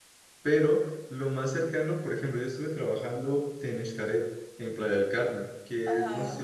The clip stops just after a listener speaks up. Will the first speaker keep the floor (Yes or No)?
Yes